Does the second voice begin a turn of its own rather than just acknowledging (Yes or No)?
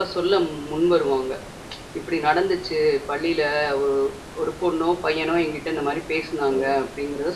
Yes